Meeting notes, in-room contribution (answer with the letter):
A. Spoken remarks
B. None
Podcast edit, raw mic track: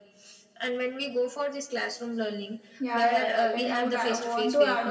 A